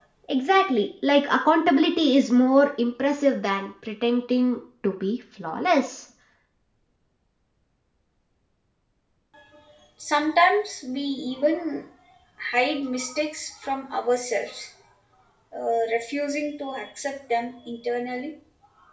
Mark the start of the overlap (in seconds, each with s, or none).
none